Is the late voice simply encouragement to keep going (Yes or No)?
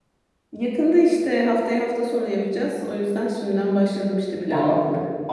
No